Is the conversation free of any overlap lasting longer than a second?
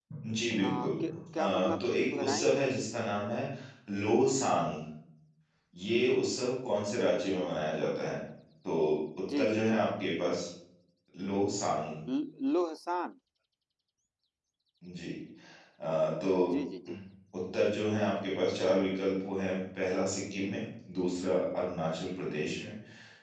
No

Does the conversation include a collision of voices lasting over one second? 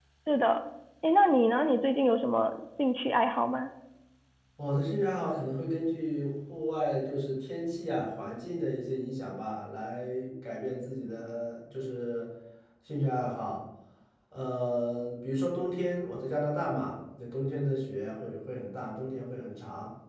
No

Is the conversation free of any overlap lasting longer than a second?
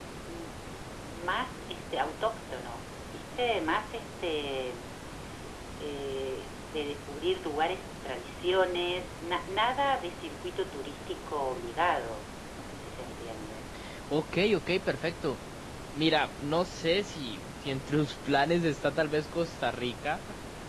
Yes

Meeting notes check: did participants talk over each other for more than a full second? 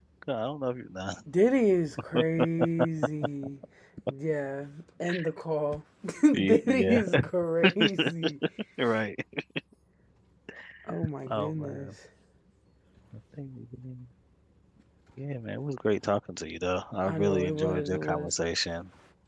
Yes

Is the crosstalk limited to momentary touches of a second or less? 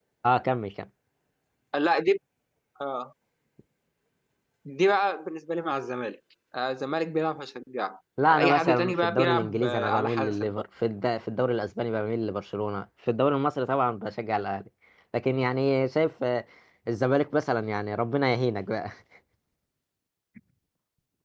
No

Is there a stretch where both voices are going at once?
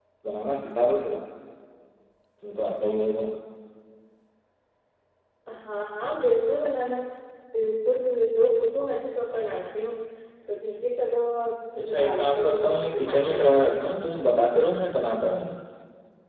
Yes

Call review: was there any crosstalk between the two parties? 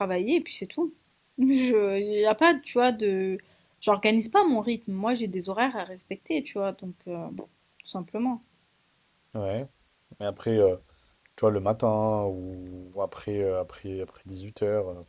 No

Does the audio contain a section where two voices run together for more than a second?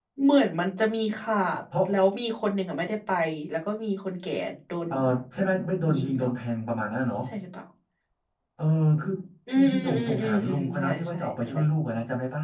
Yes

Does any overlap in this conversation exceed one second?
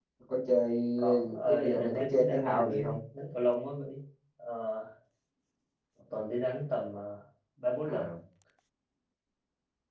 Yes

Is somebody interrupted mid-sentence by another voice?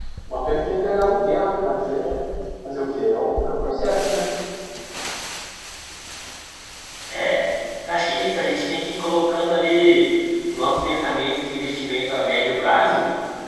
No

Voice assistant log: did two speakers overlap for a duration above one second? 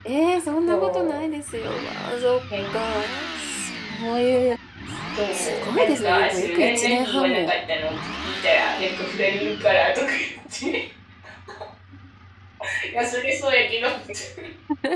Yes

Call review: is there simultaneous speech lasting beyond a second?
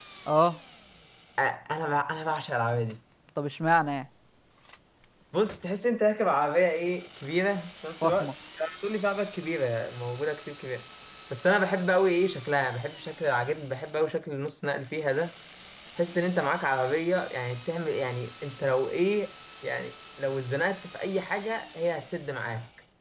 No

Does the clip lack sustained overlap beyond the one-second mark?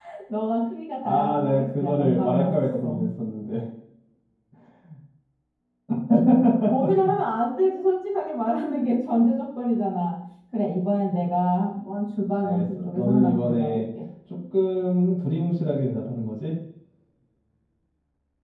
No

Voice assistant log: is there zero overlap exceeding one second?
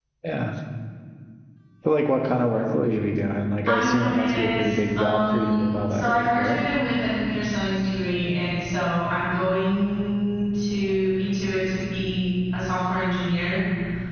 No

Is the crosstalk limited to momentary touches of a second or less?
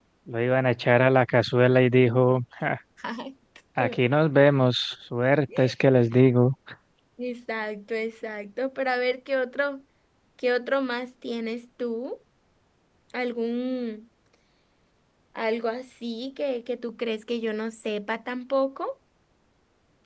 Yes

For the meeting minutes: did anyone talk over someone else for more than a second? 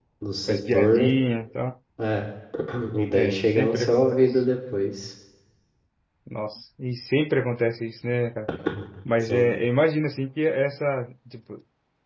Yes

